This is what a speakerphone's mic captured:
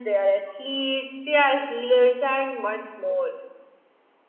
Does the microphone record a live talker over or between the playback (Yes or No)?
No